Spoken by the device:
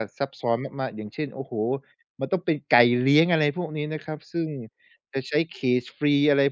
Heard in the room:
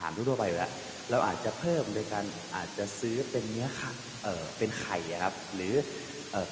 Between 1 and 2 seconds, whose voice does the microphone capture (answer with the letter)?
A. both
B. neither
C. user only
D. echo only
C